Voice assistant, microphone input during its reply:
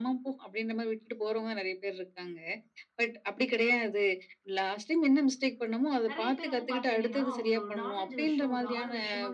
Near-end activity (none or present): present